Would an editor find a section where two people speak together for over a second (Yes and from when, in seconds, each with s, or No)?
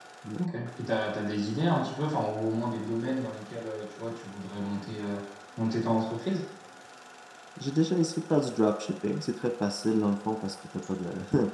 No